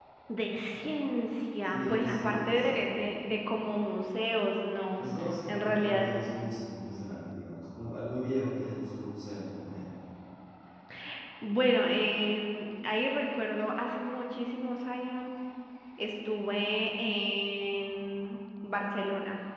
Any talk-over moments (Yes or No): Yes